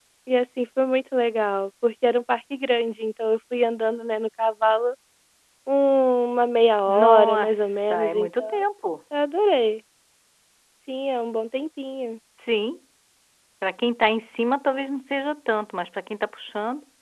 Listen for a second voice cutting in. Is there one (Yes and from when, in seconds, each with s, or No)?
Yes, from 6.9 s